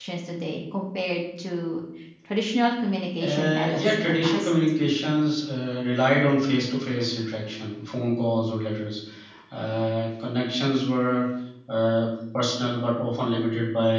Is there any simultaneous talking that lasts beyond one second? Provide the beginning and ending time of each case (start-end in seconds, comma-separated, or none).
3.2-4.5